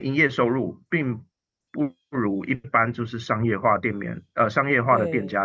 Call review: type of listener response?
listening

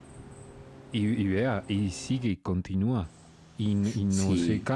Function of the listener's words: listening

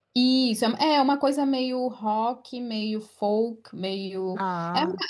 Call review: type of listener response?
listening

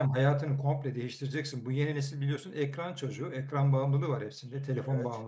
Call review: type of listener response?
listening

